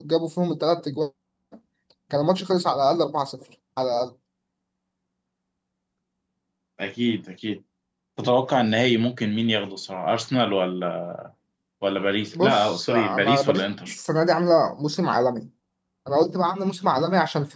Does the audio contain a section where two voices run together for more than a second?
Yes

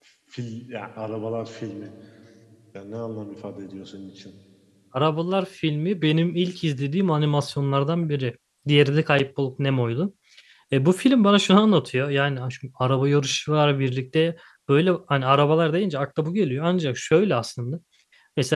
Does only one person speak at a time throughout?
Yes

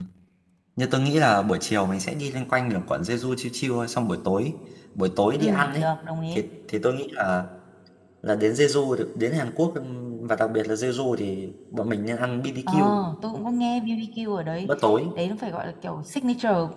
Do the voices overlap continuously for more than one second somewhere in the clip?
No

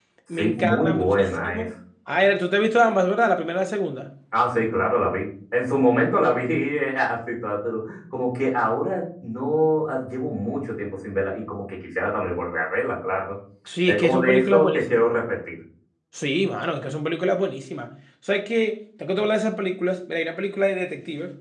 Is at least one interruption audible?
Yes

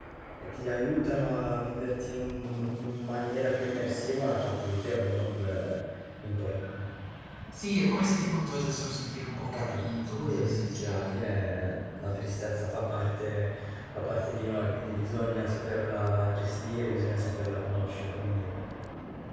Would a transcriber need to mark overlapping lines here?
Yes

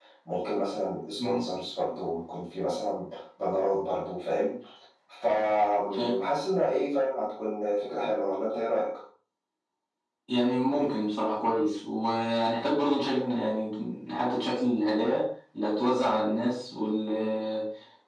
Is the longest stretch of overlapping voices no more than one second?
Yes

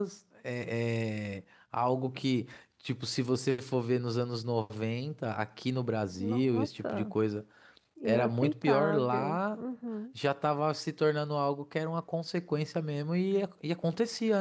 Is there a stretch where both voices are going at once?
Yes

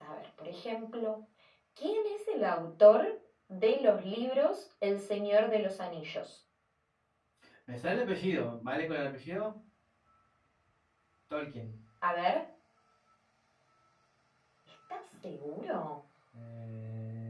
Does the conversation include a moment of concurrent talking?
No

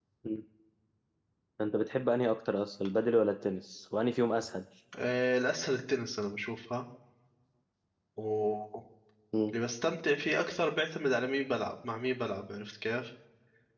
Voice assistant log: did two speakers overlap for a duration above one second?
No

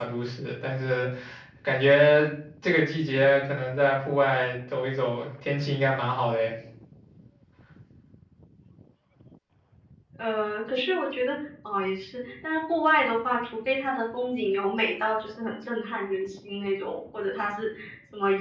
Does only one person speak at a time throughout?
Yes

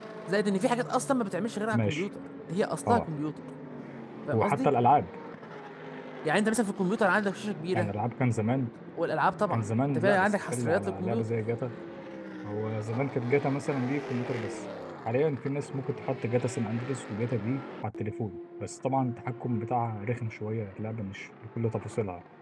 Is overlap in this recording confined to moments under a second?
No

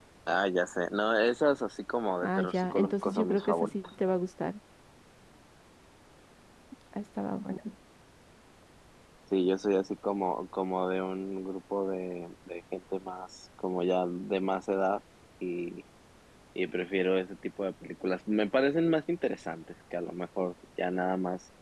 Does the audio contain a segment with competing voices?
Yes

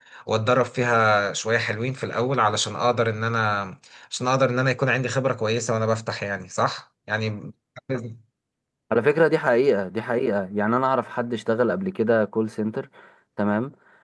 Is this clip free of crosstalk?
Yes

